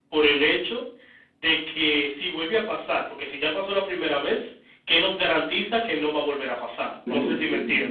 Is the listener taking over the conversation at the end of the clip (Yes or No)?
Yes